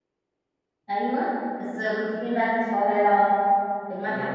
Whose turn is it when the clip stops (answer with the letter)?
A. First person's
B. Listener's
B